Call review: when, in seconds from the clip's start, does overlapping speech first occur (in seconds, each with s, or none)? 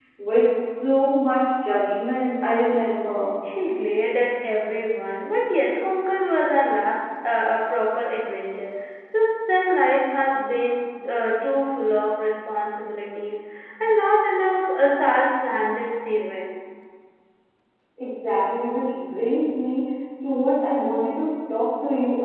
none